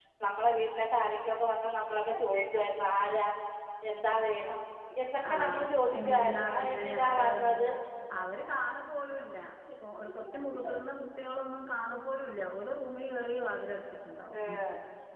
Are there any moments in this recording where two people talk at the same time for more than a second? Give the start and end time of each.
5.3-7.6

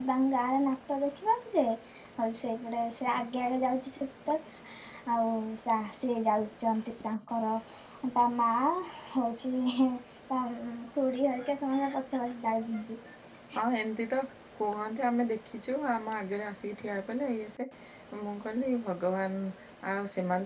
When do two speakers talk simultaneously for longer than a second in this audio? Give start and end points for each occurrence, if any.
none

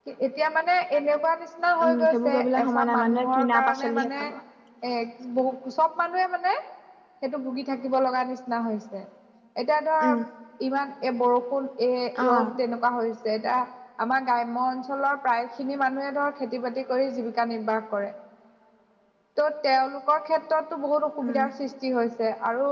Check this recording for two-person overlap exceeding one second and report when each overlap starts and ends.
1.9-4.3

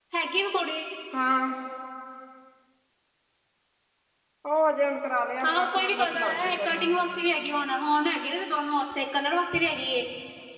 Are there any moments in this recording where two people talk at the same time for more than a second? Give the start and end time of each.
5.4-6.8

